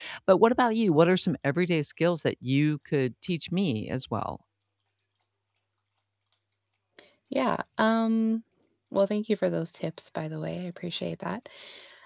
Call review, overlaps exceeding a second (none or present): none